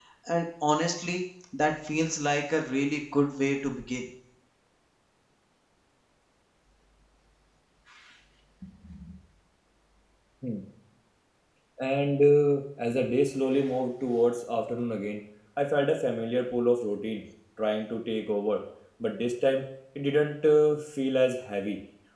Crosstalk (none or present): none